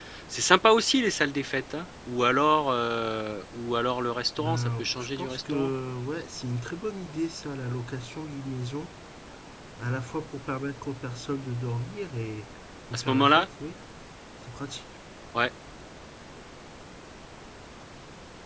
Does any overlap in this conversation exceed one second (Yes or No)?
Yes